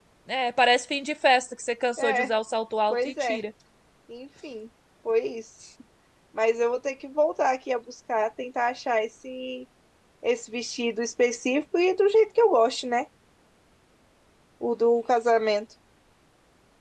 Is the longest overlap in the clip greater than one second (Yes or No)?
No